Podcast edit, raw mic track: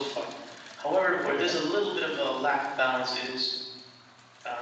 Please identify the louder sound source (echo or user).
echo